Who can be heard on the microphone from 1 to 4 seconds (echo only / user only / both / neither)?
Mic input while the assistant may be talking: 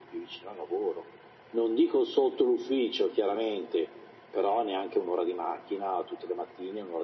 echo only